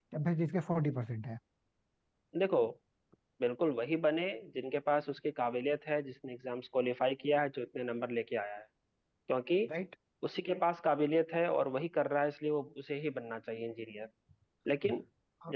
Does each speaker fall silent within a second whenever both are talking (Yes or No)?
Yes